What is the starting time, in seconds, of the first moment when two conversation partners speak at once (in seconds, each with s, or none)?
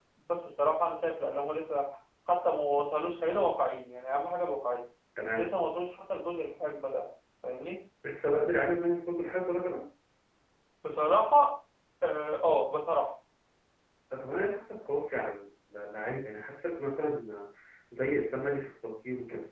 none